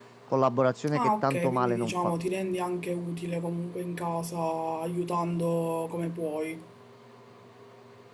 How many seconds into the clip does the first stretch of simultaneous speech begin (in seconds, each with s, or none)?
0.9 s